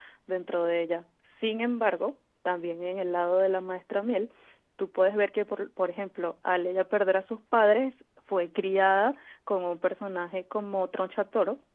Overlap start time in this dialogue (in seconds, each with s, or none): none